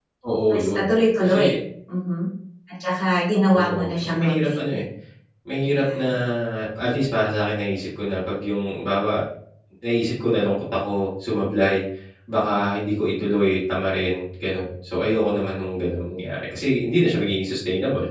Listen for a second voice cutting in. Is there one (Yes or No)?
Yes